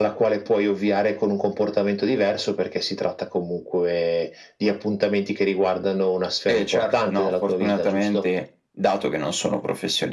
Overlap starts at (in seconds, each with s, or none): 6.5 s